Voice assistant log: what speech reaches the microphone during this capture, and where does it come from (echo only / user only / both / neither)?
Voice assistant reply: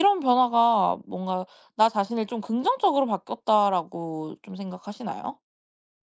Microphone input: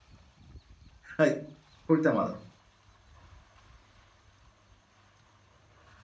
user only